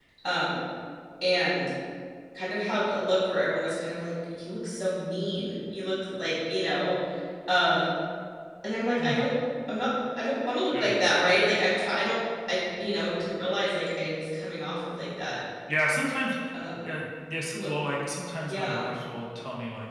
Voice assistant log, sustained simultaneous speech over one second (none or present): none